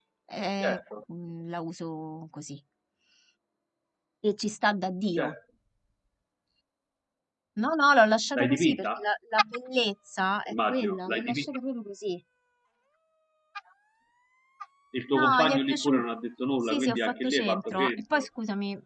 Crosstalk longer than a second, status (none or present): present